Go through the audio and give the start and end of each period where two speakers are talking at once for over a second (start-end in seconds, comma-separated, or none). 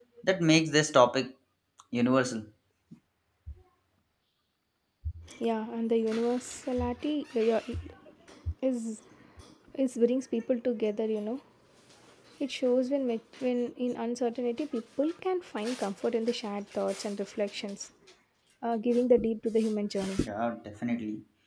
none